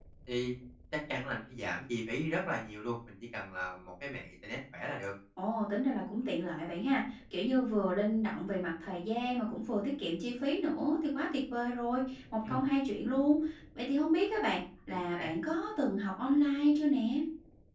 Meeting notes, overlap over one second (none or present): none